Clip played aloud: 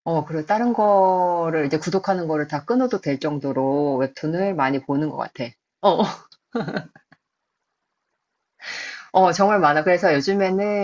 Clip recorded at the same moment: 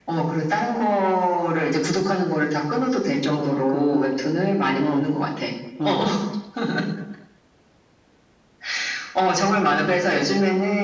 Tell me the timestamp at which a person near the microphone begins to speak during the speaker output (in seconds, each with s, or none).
3.2 s